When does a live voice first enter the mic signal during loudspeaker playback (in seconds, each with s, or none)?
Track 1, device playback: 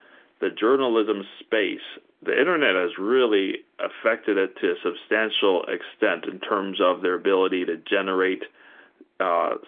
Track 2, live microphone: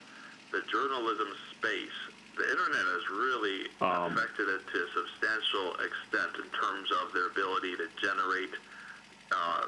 3.8 s